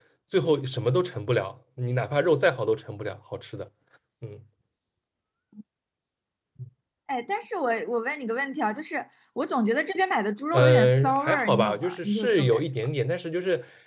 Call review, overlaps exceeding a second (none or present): present